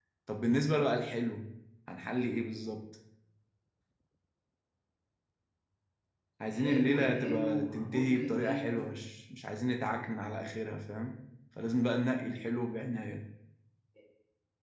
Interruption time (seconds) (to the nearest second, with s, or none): 6 s